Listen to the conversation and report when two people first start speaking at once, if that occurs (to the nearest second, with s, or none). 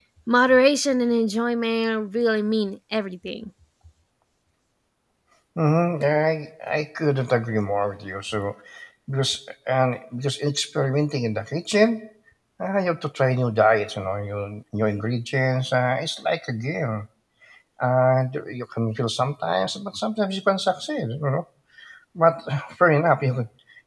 none